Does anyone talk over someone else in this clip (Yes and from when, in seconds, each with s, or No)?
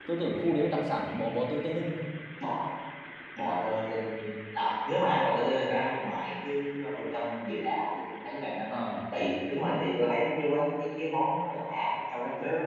No